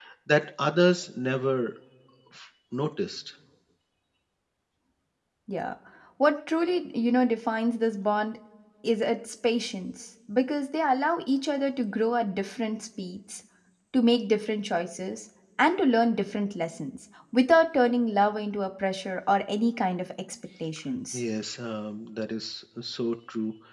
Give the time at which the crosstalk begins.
none

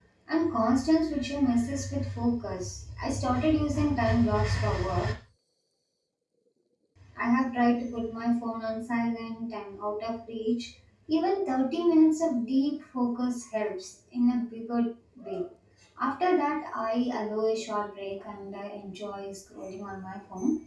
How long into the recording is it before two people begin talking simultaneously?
none

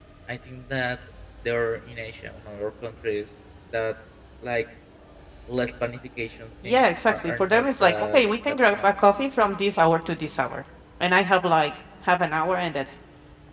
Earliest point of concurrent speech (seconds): 6.6 s

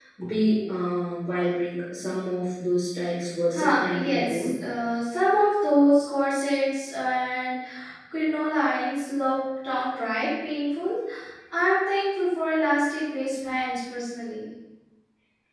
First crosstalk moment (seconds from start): 3.5 s

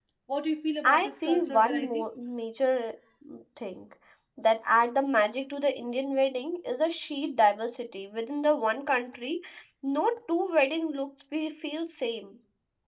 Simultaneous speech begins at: 0.8 s

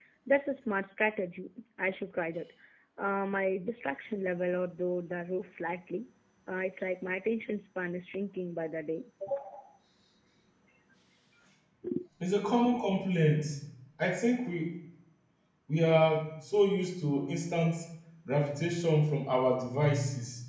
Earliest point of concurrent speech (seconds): none

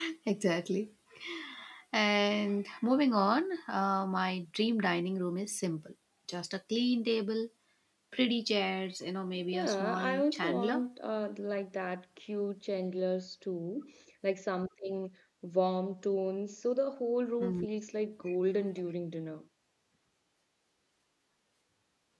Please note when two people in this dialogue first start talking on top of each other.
9.5 s

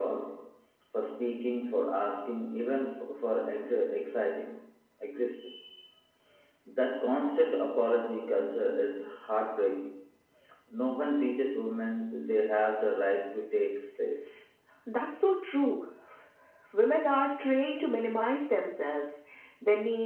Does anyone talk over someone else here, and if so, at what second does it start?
none

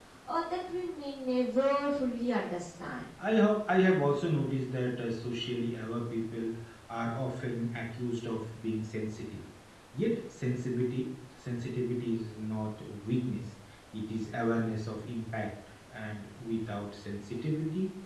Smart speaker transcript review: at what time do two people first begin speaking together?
none

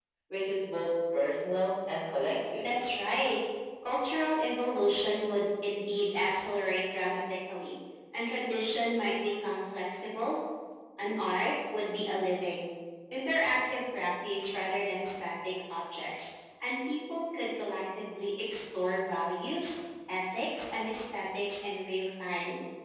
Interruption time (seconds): none

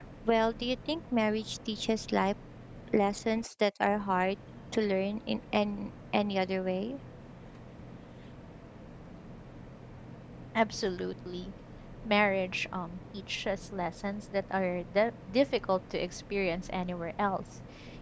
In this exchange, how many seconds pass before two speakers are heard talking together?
none

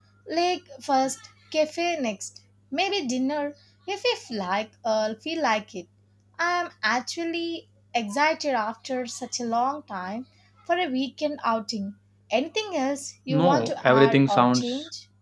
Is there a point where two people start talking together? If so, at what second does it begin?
13.3 s

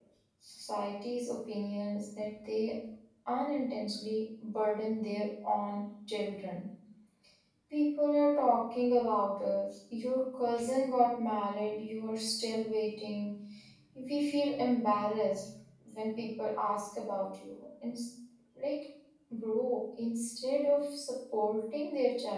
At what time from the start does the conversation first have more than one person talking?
none

